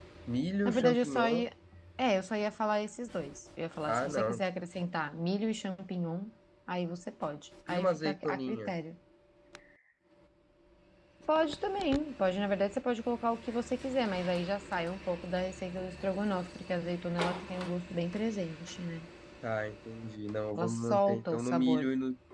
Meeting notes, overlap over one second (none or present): present